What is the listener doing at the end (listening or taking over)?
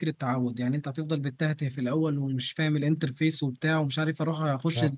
listening